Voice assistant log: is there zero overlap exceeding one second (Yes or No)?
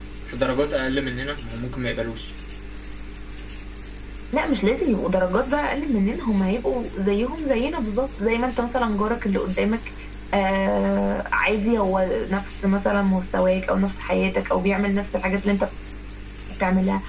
Yes